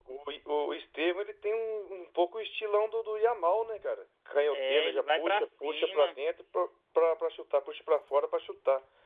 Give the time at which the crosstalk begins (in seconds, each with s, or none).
4.5 s